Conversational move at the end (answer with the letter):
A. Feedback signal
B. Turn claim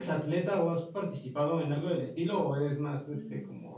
B